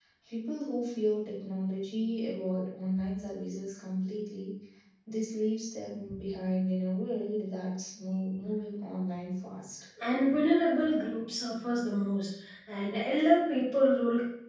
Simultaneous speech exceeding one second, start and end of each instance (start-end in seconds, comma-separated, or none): none